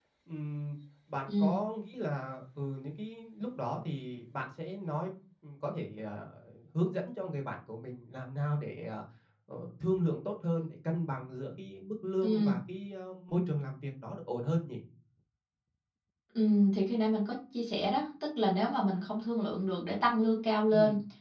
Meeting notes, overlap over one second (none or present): none